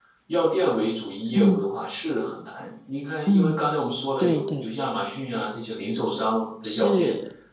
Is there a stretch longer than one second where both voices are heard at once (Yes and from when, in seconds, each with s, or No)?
No